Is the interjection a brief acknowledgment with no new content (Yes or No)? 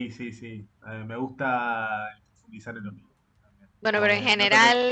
No